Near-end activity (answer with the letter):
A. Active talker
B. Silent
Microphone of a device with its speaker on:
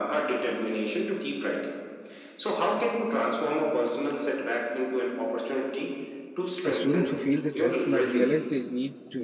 A